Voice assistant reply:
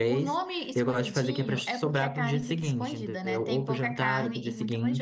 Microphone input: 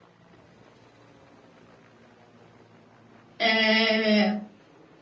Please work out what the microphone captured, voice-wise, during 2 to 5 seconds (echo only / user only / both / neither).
user only